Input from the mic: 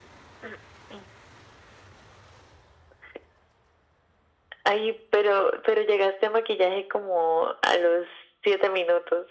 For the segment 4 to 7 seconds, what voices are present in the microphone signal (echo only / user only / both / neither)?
echo only